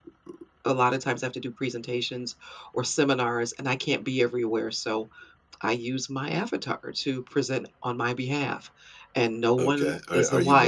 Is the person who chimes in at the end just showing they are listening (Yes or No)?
No